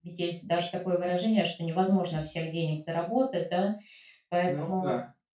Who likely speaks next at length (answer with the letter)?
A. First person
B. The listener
A